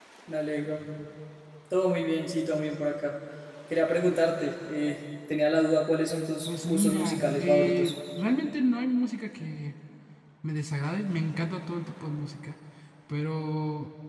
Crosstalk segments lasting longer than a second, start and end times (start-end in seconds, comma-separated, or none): 6.5-7.9